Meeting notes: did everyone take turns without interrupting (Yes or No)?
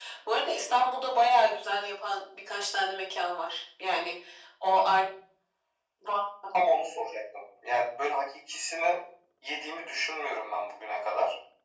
Yes